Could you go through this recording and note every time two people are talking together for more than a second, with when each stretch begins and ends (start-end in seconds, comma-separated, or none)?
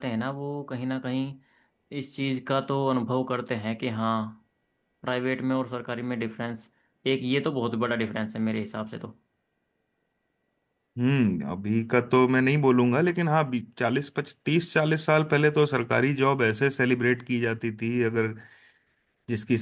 none